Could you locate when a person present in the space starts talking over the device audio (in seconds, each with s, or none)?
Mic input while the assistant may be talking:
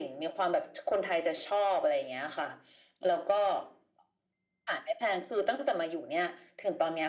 none